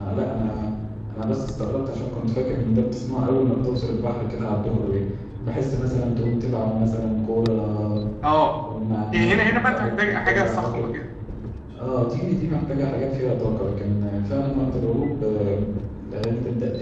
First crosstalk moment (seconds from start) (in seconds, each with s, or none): 9.1 s